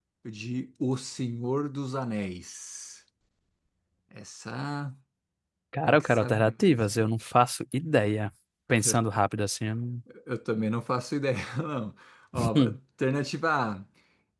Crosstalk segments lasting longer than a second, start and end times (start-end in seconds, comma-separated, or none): 5.9-7.1